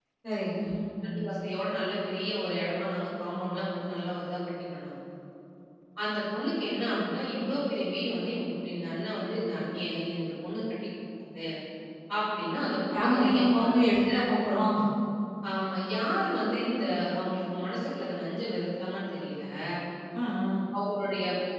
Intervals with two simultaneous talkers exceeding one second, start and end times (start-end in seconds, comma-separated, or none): 12.9-14.2